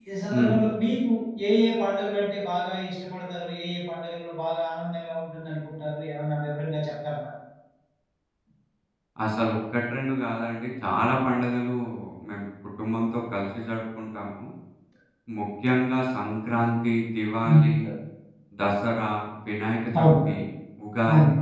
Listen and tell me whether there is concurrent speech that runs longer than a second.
No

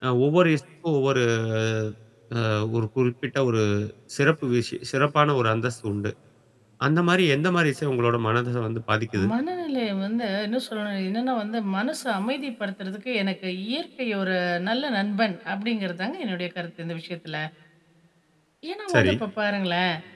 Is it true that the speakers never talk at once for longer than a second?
Yes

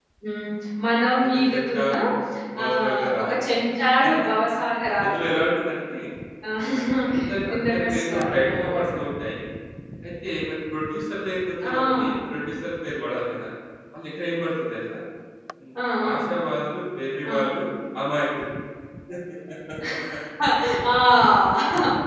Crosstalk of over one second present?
Yes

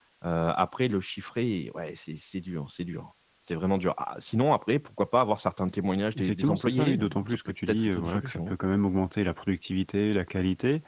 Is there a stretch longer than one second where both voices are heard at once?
Yes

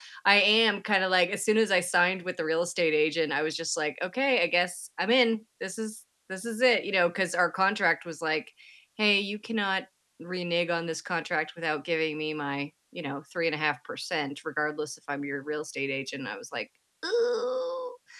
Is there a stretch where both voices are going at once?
No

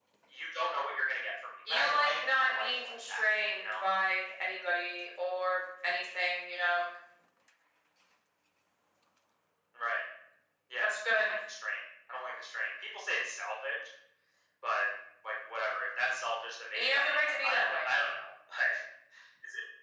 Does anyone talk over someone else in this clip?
Yes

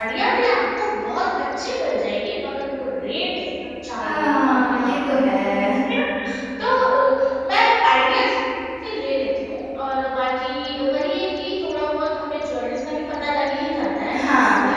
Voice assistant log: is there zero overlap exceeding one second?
No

